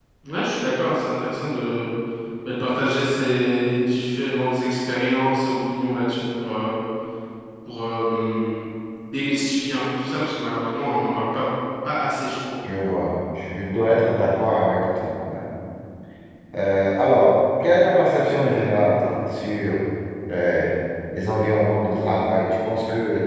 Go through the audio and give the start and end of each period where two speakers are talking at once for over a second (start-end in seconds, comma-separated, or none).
none